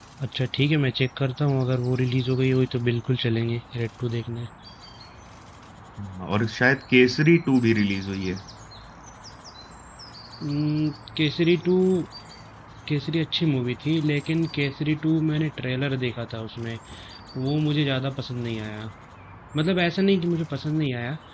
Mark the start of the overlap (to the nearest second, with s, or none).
none